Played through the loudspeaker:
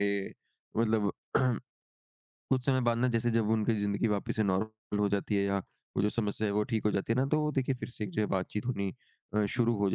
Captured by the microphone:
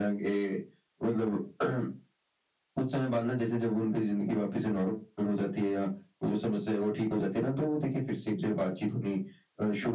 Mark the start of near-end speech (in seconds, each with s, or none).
none